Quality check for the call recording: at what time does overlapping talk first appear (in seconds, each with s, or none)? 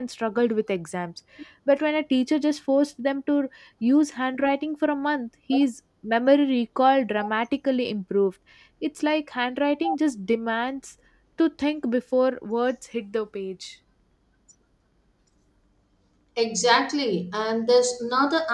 none